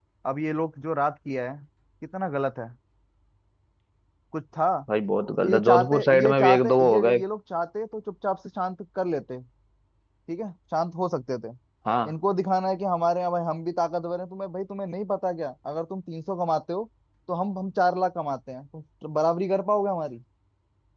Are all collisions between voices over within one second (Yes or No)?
No